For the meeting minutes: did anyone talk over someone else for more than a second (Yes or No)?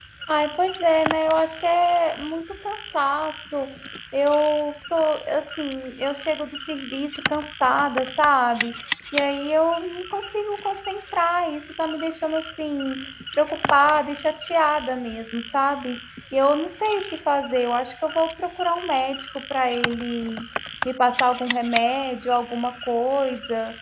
No